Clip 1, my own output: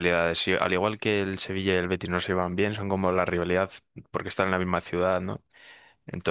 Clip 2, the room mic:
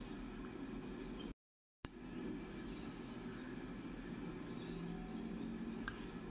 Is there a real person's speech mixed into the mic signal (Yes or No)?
No